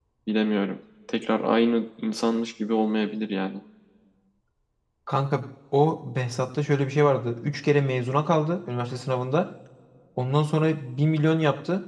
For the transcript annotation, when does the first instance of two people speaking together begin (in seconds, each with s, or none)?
none